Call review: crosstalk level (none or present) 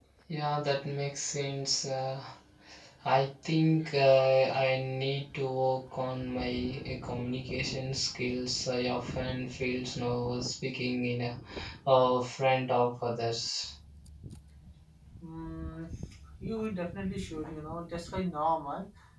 none